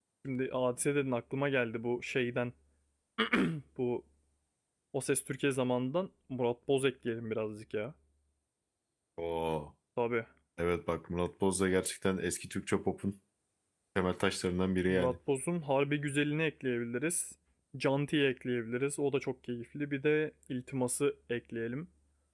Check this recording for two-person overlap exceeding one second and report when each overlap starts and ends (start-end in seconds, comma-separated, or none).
none